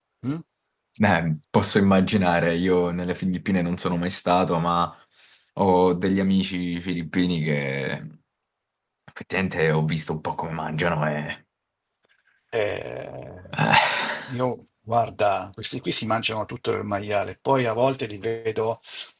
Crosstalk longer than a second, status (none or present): none